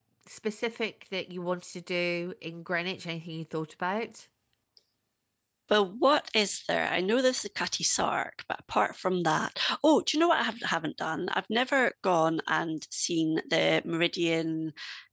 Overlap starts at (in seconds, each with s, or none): none